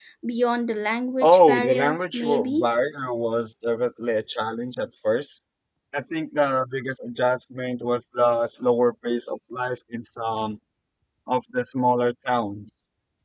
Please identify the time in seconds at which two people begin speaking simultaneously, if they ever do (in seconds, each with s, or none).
1.2 s